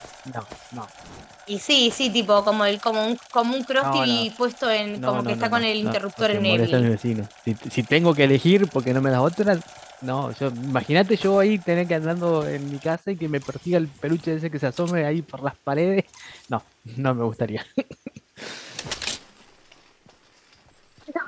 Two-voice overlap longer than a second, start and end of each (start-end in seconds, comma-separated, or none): 5.0-6.9